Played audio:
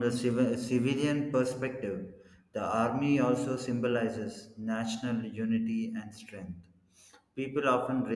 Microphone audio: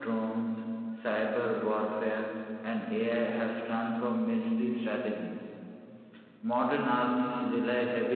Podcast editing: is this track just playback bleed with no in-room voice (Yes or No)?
No